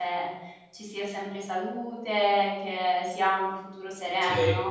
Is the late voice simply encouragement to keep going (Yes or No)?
No